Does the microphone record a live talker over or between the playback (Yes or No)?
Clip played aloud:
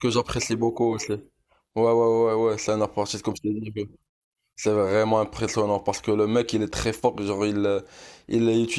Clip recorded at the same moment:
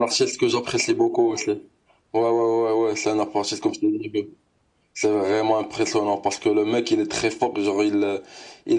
No